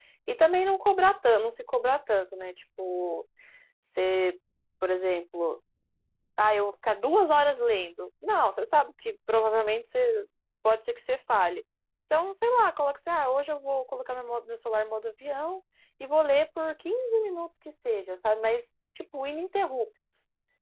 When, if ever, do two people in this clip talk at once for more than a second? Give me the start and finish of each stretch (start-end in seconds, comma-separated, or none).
none